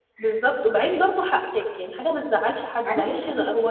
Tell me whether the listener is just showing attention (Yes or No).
Yes